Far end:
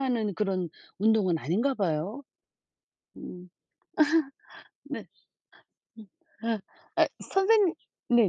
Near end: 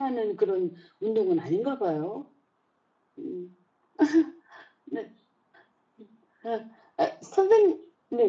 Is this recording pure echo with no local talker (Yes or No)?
Yes